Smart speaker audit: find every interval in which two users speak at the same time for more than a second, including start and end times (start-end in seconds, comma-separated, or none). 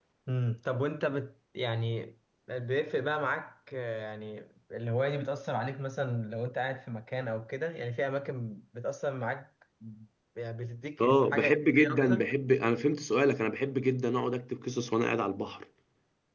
11.0-12.2